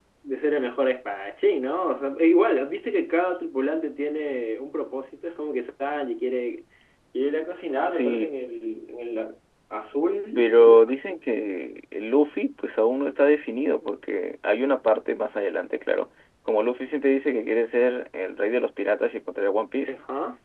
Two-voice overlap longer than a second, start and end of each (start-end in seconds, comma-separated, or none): none